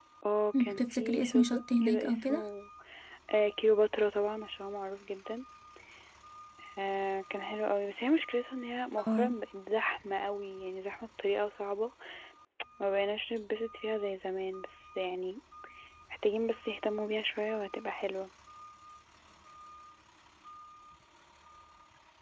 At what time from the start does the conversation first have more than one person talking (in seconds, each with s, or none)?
0.6 s